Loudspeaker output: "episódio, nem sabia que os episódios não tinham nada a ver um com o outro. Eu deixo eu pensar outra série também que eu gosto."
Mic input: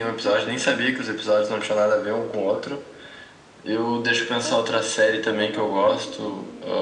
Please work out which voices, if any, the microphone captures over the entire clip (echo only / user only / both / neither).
both